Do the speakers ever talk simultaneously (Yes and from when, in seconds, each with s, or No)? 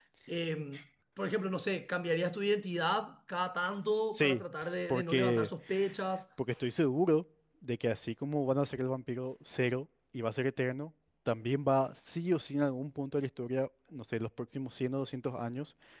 Yes, from 4.1 s